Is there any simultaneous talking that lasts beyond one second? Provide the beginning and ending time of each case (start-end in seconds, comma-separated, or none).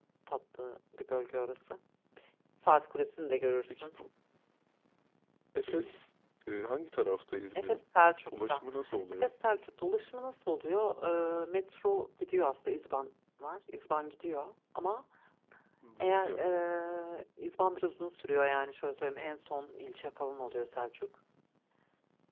none